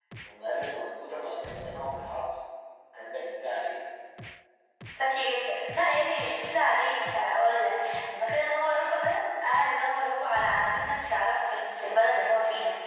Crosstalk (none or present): none